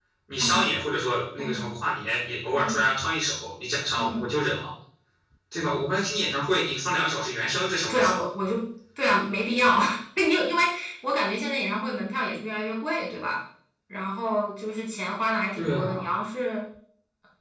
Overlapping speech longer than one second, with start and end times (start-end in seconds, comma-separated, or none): none